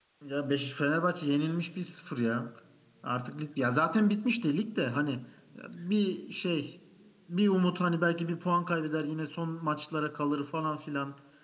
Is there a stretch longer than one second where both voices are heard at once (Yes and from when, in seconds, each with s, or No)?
No